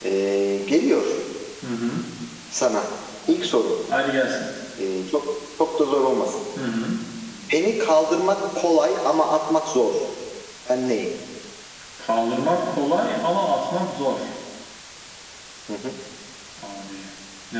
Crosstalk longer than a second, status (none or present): none